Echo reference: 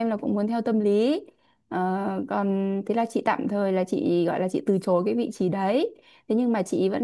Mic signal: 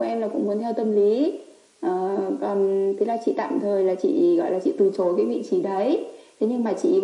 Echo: present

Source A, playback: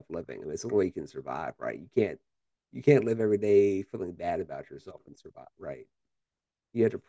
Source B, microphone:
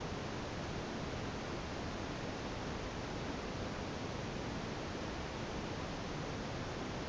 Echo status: none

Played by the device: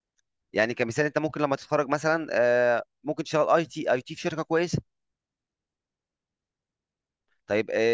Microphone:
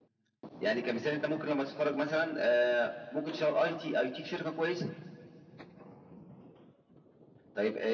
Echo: present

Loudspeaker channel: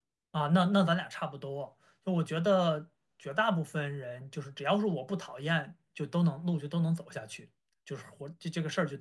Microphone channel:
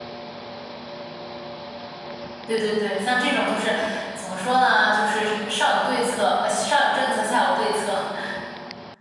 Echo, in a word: none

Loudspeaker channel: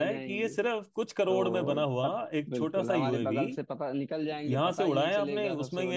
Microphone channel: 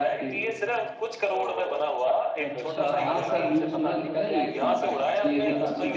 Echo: present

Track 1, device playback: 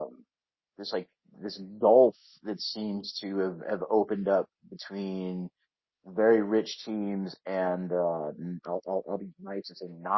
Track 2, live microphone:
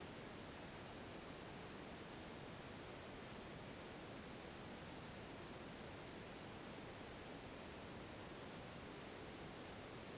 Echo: none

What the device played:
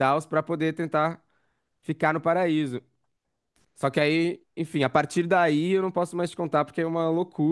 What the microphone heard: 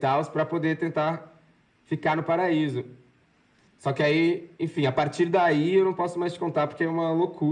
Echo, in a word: present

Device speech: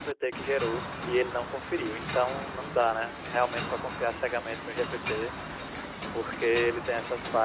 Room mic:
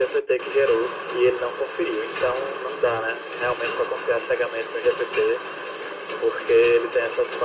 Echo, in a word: present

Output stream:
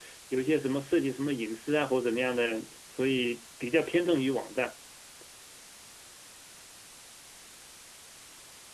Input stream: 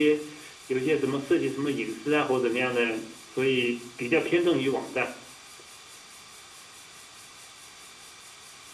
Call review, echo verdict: present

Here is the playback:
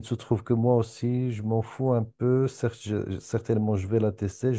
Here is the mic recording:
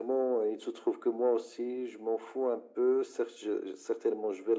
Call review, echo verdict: present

